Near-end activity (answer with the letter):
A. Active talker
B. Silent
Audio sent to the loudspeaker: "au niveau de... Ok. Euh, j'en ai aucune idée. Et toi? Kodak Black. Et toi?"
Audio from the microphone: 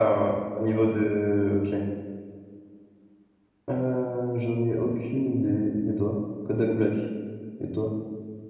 B